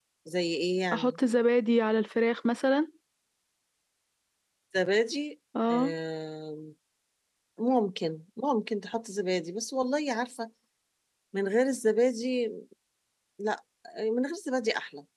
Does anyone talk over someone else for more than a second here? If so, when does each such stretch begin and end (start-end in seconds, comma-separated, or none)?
none